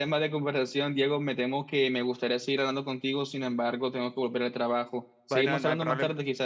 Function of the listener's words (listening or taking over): taking over